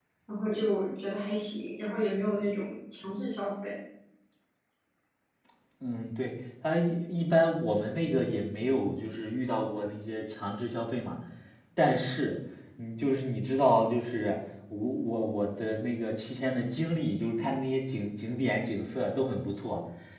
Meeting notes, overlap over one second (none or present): none